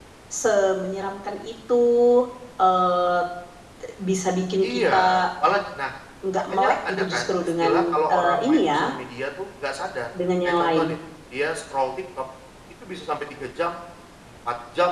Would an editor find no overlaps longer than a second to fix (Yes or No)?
No